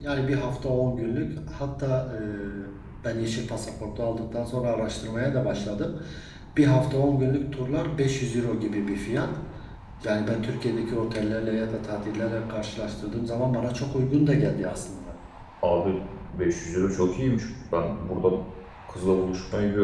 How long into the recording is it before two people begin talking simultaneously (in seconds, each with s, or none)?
none